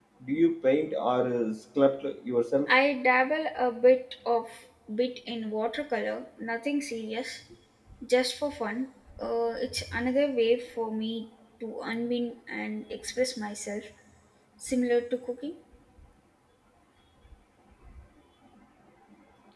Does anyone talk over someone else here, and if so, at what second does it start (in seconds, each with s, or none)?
none